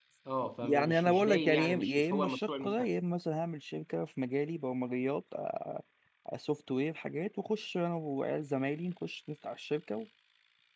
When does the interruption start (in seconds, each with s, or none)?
0.6 s